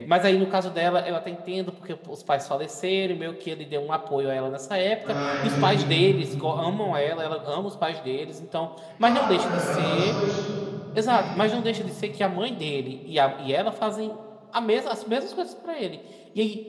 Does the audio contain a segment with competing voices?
Yes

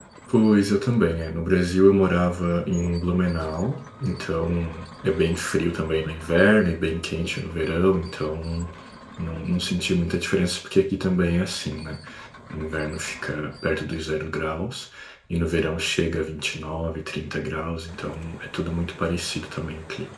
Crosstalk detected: No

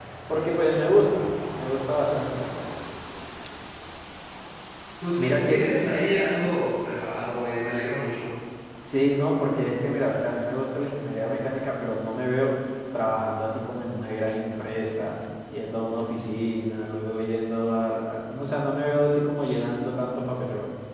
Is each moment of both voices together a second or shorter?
Yes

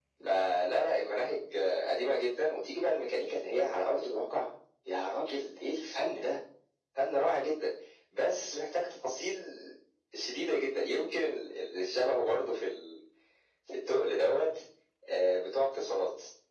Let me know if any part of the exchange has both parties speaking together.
No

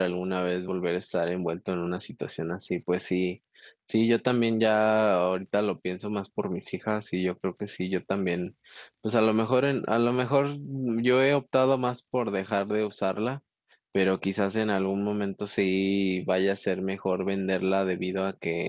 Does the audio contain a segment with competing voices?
No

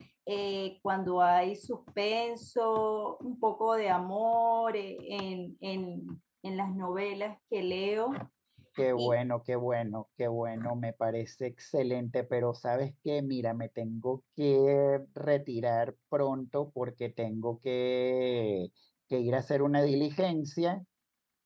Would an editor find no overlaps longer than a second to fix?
Yes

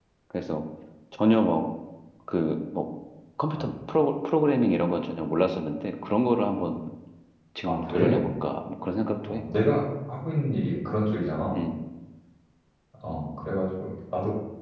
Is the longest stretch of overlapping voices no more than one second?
Yes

